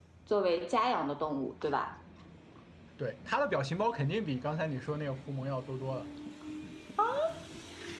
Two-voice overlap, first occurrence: none

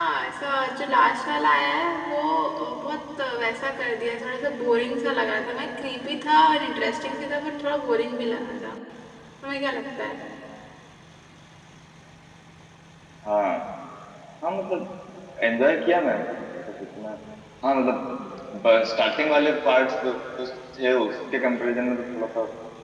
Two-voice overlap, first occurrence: none

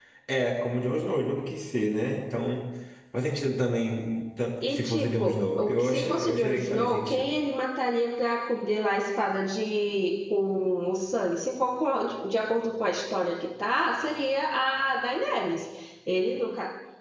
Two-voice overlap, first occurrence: 5 s

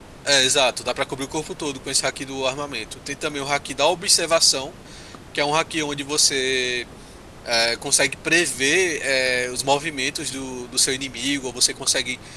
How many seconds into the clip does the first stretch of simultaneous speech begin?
none

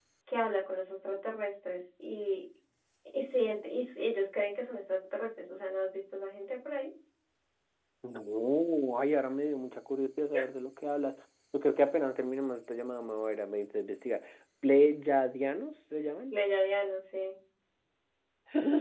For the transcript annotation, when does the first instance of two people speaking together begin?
none

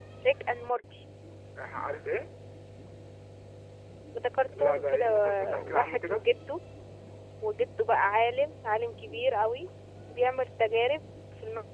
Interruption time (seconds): 5 s

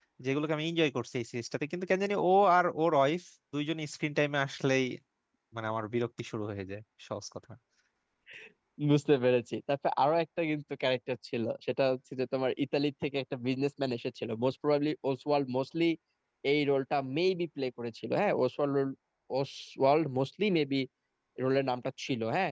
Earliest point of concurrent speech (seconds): none

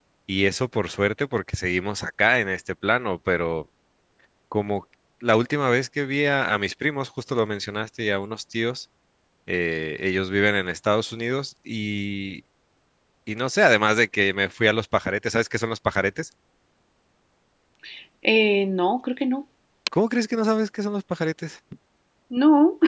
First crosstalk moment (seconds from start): none

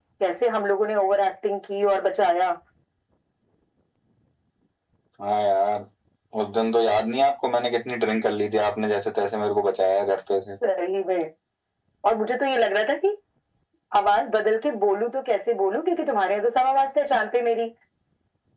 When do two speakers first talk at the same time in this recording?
none

